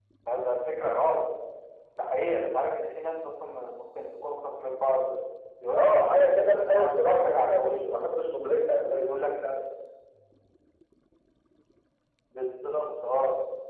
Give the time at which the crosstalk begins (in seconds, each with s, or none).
5.7 s